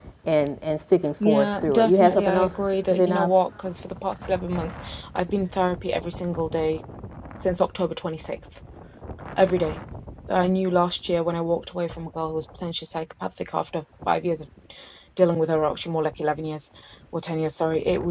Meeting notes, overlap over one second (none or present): present